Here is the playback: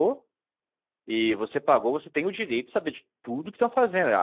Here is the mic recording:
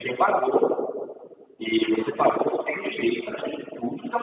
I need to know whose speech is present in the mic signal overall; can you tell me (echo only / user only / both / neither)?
echo only